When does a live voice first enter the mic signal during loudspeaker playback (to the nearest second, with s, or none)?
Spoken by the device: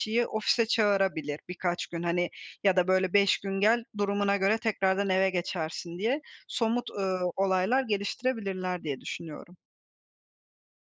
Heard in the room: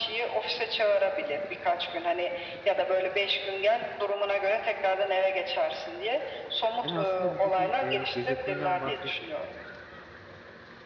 7 s